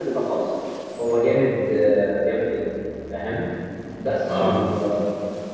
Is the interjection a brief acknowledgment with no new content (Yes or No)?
Yes